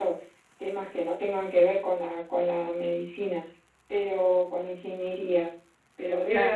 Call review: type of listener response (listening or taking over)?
listening